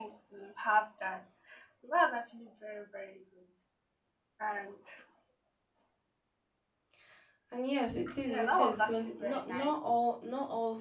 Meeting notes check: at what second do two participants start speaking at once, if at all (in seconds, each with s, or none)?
8.2 s